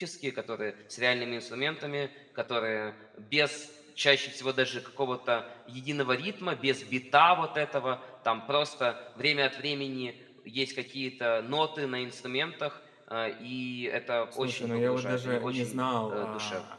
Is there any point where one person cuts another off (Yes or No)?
Yes